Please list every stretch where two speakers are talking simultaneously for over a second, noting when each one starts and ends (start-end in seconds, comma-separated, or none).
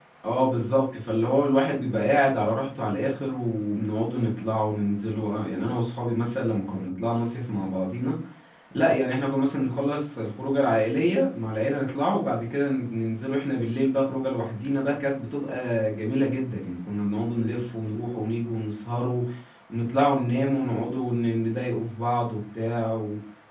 none